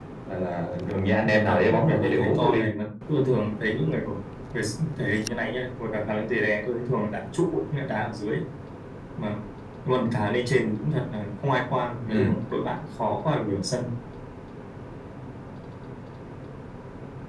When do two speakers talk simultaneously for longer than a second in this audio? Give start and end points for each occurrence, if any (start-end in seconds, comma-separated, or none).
1.2-2.7